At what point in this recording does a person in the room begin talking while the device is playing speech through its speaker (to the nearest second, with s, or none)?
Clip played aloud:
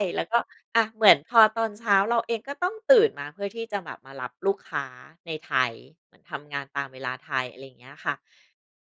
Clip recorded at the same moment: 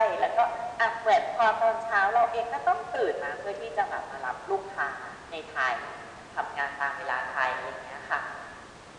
none